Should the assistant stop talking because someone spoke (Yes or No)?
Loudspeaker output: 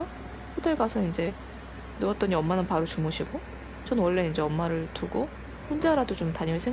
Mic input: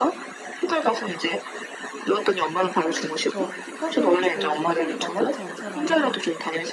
Yes